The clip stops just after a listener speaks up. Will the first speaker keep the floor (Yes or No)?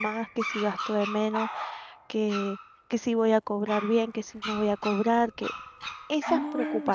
Yes